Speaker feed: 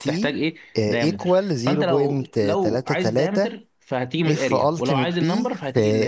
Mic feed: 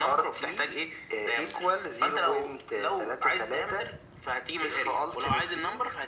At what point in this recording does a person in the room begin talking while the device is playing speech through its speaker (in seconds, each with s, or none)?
none